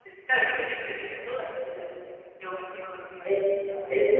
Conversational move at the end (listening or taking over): taking over